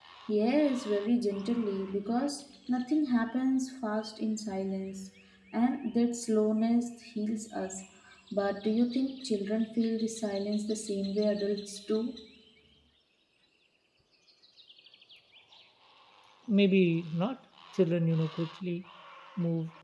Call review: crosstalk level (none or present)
none